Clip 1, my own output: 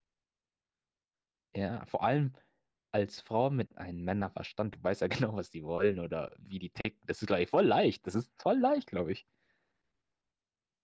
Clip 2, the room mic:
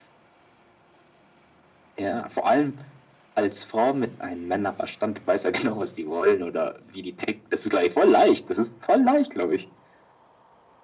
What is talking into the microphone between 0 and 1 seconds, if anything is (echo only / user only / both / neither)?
neither